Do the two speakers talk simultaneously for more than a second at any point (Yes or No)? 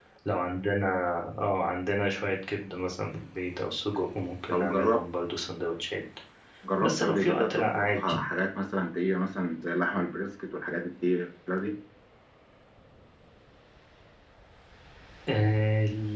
Yes